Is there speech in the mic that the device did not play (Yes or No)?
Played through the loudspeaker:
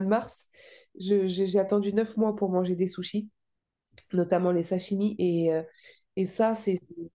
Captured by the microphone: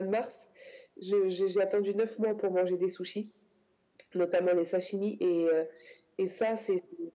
No